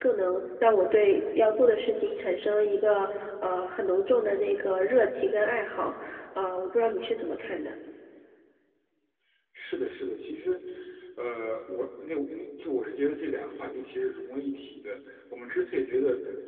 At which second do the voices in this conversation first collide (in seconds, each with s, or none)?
none